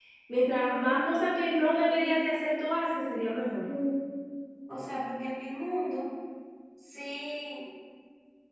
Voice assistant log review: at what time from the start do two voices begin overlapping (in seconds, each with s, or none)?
none